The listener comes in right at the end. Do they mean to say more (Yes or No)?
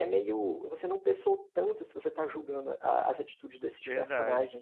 Yes